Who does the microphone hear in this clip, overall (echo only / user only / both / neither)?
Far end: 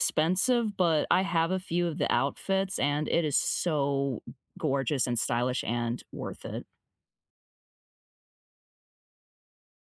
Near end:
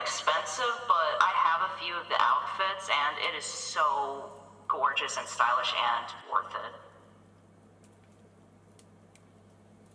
echo only